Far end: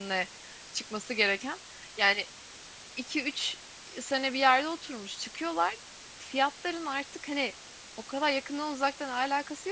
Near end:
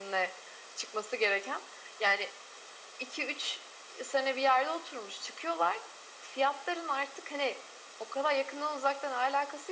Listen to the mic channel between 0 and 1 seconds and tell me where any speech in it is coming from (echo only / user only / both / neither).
echo only